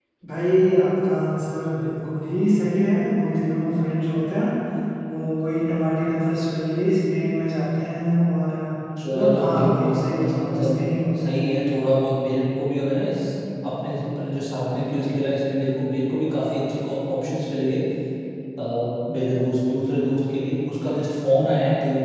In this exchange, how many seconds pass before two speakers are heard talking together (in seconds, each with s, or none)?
9.0 s